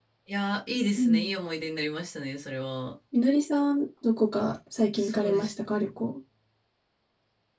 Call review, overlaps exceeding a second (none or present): none